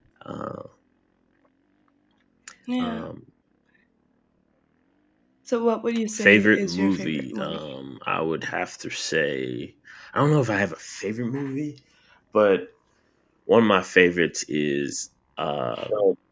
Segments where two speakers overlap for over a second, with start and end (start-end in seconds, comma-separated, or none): 6.2-7.6